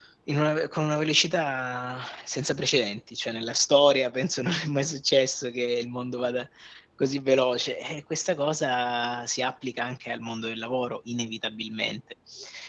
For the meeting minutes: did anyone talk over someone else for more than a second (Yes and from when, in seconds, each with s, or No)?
No